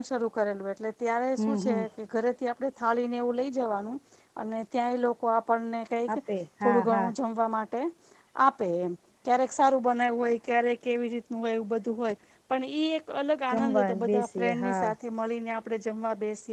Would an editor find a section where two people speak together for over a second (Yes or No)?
Yes